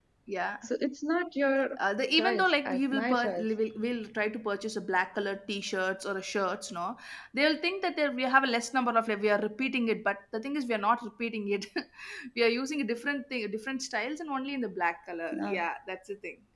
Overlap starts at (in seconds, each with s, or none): 2.2 s